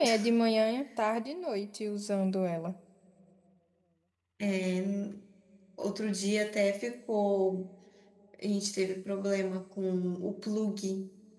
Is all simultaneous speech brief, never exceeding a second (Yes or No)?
Yes